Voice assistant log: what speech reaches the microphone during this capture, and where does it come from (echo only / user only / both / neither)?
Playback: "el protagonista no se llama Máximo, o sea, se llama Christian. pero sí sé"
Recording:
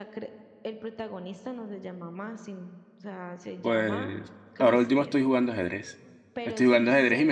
both